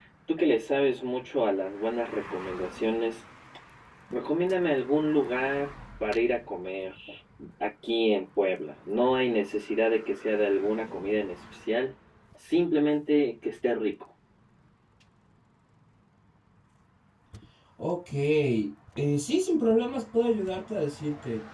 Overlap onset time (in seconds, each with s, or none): none